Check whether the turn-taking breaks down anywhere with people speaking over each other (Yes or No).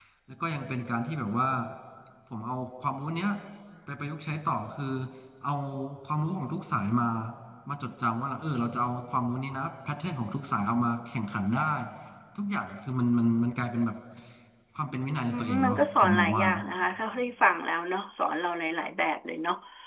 Yes